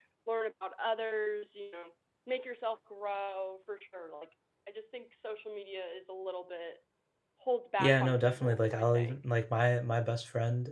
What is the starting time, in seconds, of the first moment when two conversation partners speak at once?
7.8 s

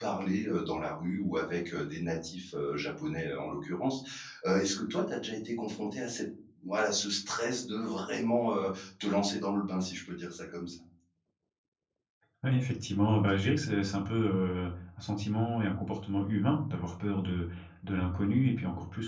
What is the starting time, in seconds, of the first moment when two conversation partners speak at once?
none

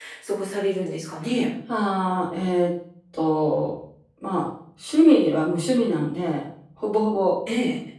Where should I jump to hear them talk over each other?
none

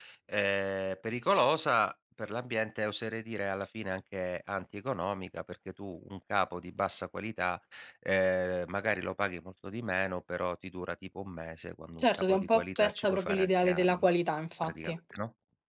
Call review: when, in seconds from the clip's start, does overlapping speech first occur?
12.0 s

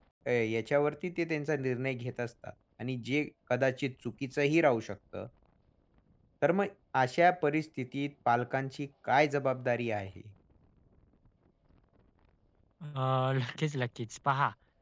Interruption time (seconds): none

